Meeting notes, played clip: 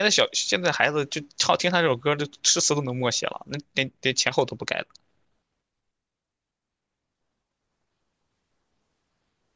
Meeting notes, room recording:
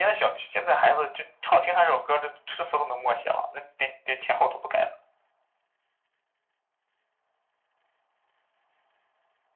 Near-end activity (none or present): none